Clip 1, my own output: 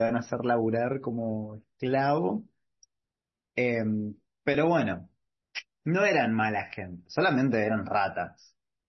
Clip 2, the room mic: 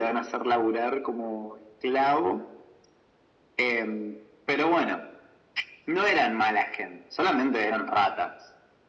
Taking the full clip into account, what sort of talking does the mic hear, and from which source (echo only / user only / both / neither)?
echo only